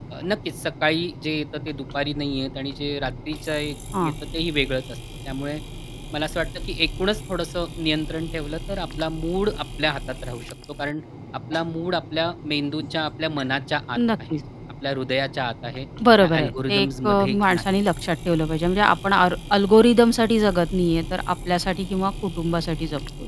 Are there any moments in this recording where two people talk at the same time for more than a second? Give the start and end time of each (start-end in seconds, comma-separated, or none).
16.2-17.8